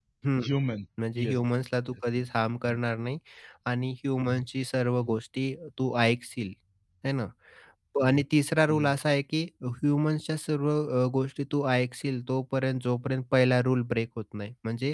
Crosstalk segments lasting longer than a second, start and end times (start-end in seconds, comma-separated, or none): none